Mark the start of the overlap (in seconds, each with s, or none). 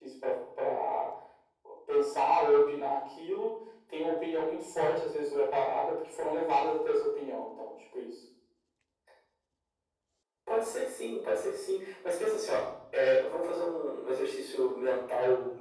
none